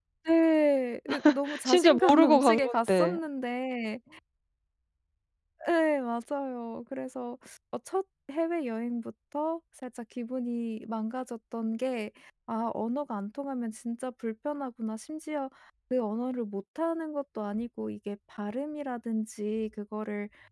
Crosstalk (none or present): present